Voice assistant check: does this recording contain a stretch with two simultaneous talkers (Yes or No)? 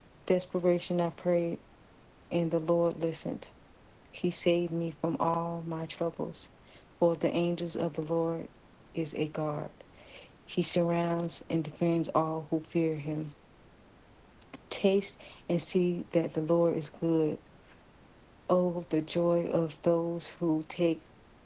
No